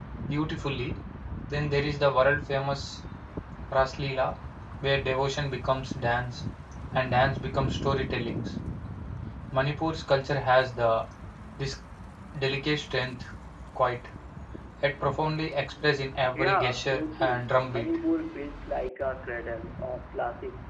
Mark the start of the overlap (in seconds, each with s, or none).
16.4 s